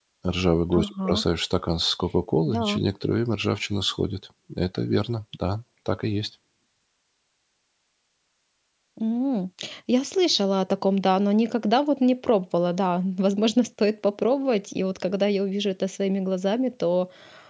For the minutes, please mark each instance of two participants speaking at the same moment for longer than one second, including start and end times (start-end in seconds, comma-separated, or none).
none